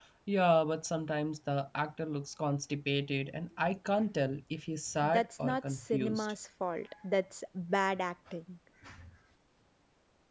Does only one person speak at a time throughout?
No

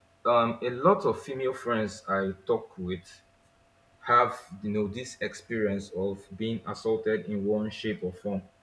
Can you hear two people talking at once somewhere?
No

